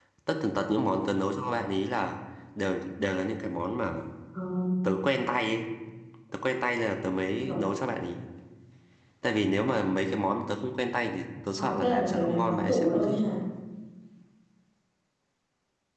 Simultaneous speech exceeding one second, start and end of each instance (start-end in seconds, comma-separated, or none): 11.6-13.2